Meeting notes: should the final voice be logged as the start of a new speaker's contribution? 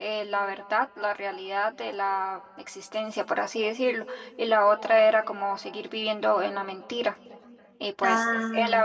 No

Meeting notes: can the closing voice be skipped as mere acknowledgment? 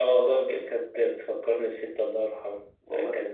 Yes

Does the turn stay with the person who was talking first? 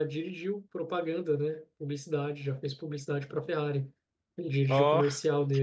Yes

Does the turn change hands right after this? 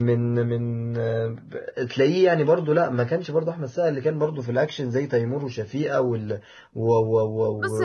Yes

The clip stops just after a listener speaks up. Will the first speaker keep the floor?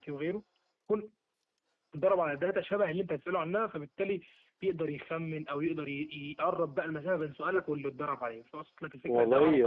No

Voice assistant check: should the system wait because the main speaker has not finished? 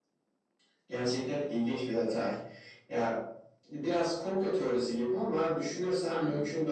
Yes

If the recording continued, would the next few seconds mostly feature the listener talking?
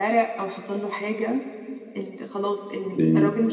No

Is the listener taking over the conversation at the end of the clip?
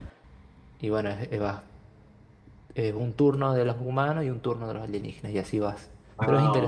Yes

